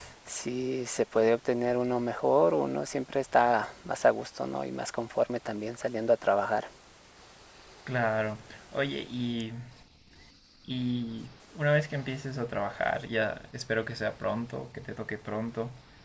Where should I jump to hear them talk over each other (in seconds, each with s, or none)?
none